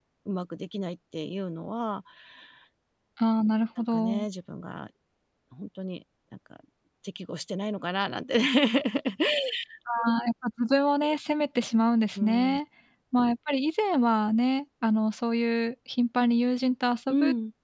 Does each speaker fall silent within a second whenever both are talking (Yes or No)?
Yes